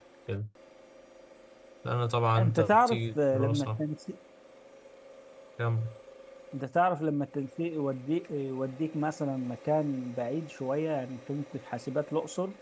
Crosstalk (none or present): present